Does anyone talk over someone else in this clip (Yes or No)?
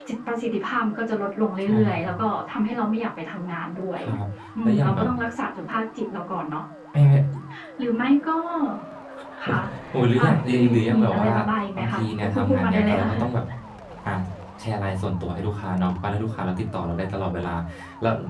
Yes